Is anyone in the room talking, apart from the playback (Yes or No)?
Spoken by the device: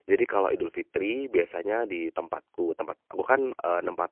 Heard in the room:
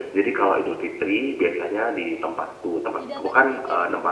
Yes